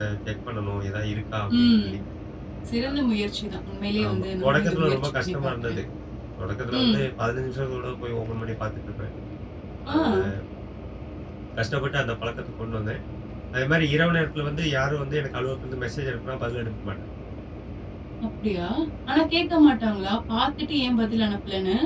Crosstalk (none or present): present